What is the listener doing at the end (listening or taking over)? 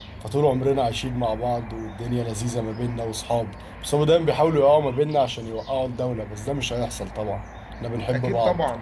taking over